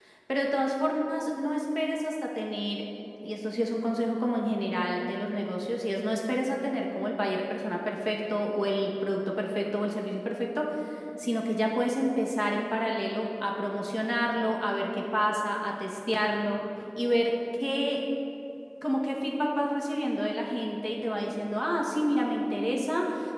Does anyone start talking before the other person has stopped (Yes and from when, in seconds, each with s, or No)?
No